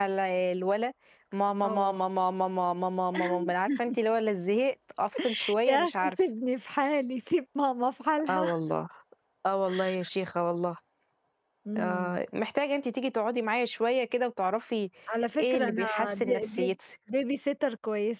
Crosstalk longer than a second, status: present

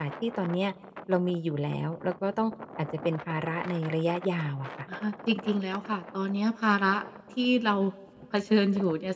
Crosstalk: none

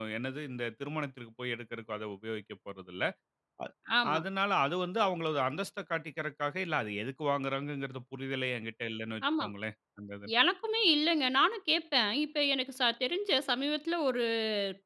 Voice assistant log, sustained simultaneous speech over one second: none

